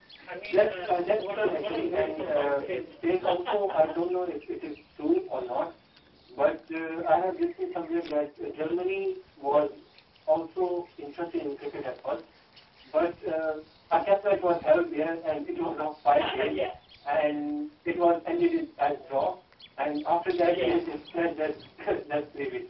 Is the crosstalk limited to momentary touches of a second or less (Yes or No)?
No